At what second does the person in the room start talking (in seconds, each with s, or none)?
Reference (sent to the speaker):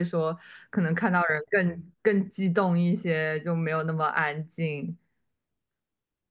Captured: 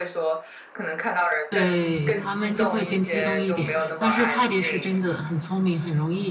1.5 s